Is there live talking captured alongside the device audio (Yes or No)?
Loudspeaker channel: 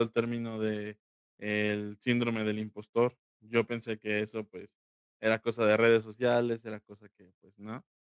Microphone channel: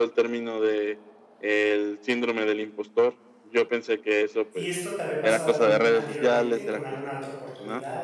Yes